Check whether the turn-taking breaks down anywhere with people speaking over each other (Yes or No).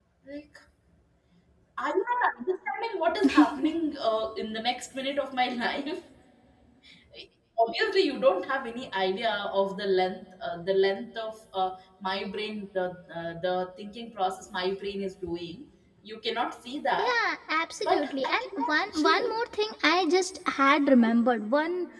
Yes